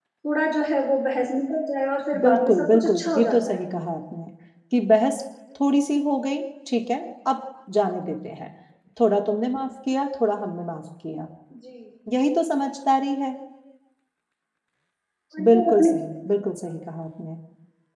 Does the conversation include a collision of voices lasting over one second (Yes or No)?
Yes